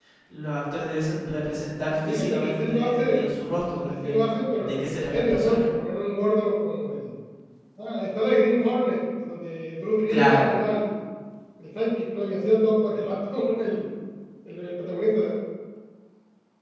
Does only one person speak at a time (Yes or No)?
No